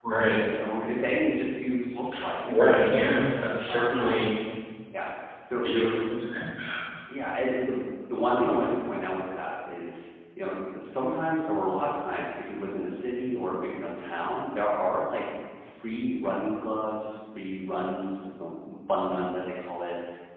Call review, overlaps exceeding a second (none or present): none